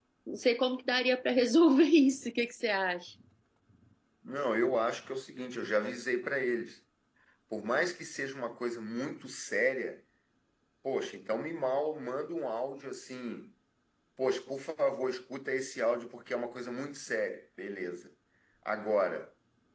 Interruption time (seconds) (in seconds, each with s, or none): none